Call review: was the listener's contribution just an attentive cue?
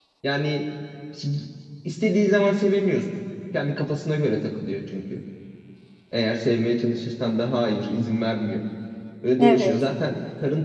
Yes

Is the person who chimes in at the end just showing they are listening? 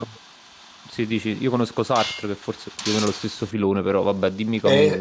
No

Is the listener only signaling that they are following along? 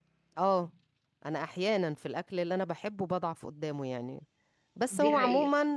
Yes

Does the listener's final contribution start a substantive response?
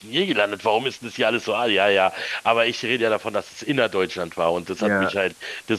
No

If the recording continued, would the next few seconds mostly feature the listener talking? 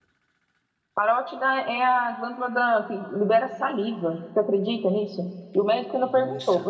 No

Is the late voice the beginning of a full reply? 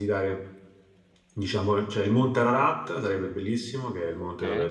No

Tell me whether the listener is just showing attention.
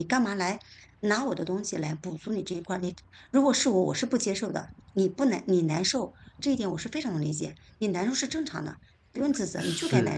No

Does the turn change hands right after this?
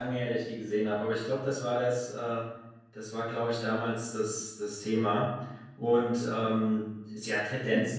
No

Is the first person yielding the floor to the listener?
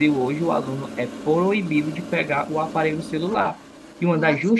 No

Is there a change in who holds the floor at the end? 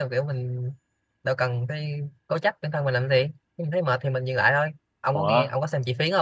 No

